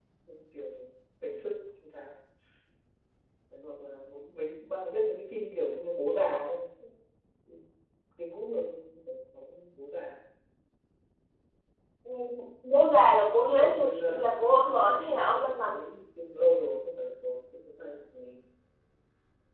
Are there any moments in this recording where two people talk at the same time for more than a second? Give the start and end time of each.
13.6-15.8

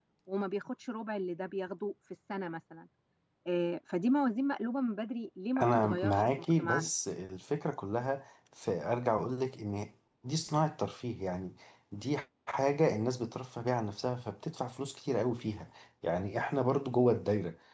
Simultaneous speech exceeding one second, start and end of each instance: 5.6-6.9

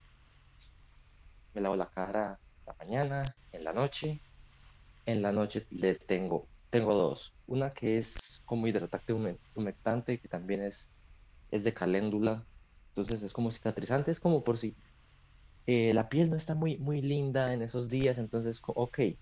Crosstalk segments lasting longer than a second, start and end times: none

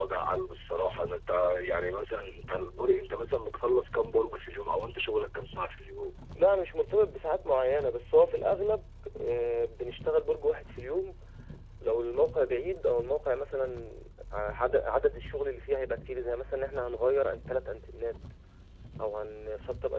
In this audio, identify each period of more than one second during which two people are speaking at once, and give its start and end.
none

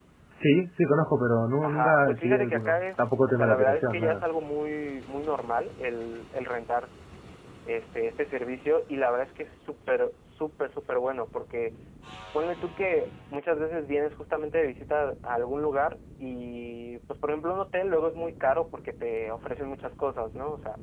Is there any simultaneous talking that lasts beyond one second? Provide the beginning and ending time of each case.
1.6-4.2

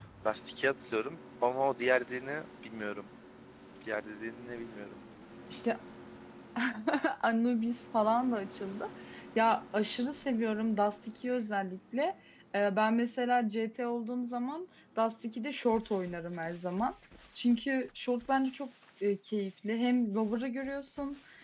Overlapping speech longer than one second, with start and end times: none

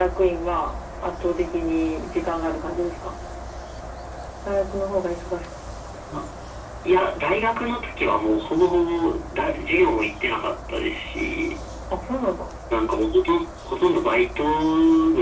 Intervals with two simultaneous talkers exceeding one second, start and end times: none

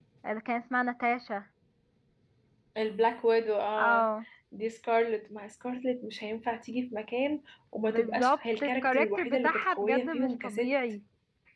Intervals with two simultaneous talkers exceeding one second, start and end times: 7.9-10.7

